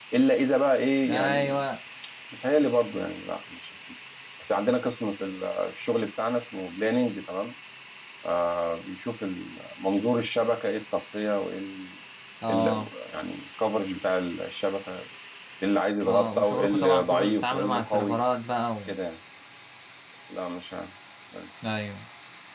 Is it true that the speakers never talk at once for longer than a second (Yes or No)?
No